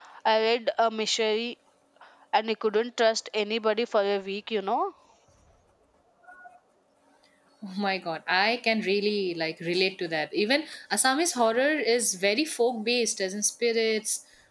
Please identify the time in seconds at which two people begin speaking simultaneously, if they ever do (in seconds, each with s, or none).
none